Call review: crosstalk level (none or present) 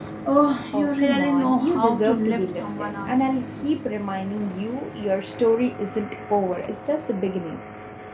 present